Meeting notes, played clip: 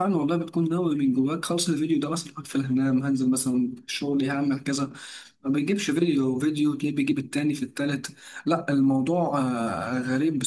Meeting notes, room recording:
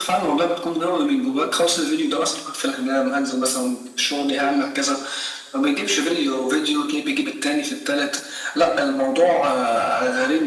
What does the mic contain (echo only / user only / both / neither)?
echo only